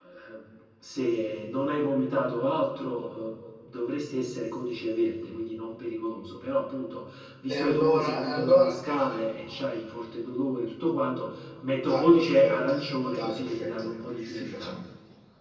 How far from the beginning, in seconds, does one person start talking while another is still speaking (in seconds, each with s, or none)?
7.5 s